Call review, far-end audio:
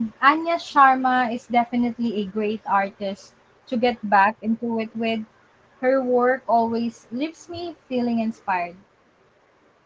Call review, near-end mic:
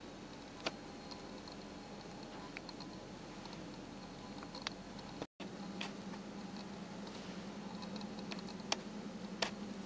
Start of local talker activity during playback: none

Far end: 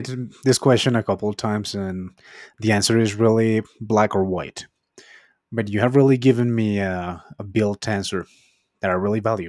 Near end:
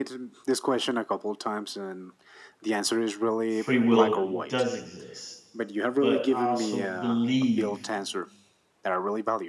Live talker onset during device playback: 3.5 s

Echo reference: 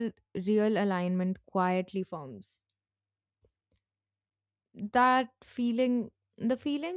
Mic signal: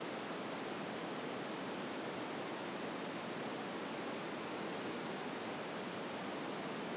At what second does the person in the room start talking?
none

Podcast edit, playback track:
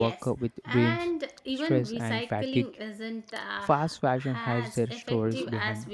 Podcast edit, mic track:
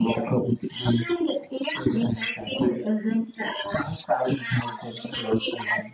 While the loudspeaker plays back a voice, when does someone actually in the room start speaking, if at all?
none

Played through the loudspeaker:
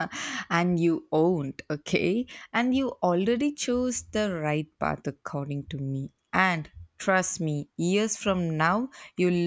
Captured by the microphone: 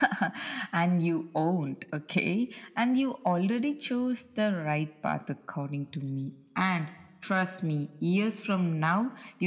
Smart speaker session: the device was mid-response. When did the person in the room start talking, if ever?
none

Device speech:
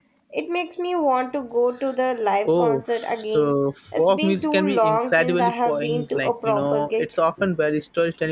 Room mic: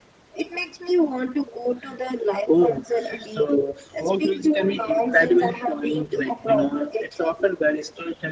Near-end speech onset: none

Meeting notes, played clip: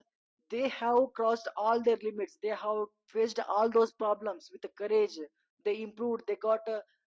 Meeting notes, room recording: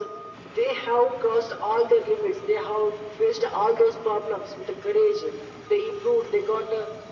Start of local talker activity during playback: none

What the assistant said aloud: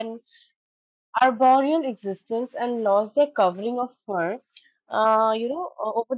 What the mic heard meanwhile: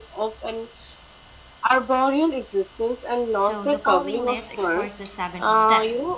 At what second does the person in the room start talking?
3.4 s

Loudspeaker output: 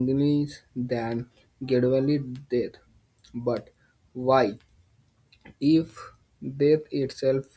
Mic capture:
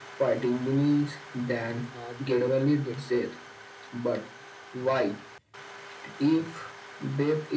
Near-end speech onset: 1.9 s

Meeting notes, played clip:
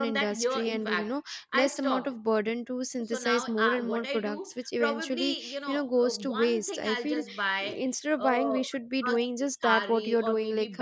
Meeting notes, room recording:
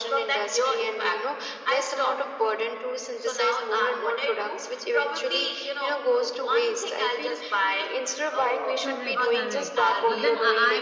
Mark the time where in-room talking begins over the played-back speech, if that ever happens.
8.8 s

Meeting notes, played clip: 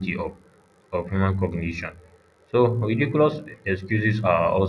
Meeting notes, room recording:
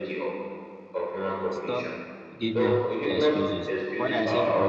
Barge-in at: 1.5 s

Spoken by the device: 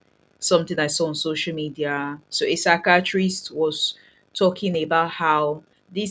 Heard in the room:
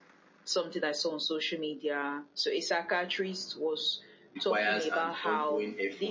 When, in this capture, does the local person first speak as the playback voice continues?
4.3 s

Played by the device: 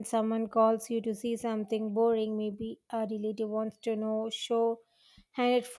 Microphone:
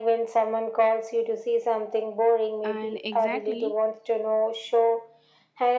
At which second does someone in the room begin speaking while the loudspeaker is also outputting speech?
2.6 s

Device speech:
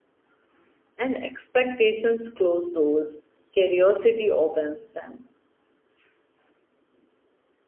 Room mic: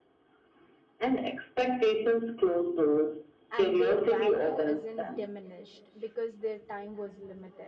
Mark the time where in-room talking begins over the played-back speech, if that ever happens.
3.5 s

